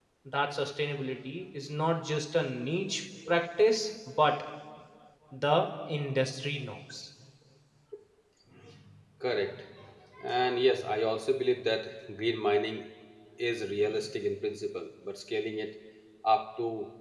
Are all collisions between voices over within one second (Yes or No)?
Yes